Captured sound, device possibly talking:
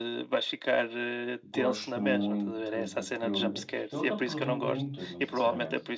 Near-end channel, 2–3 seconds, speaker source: both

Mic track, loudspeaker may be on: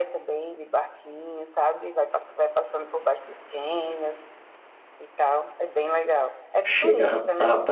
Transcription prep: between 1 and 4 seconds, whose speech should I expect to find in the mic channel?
echo only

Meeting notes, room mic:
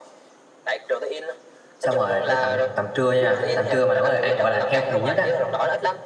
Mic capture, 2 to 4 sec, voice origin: both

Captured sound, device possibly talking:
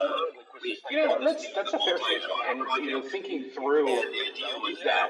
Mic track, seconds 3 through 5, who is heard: both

